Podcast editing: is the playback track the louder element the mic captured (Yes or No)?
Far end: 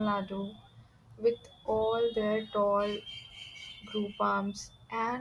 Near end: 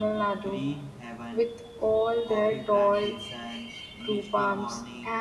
Yes